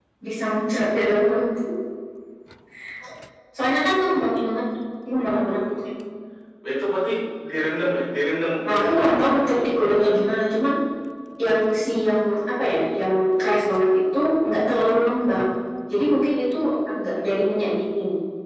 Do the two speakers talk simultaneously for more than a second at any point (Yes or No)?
Yes